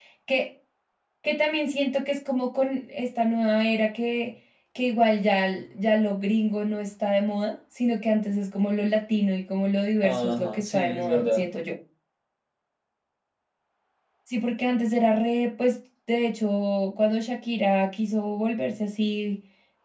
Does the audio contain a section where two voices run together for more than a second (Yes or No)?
Yes